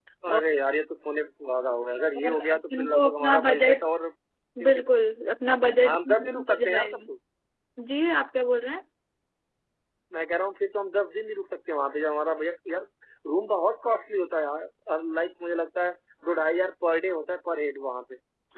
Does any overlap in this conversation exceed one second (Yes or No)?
Yes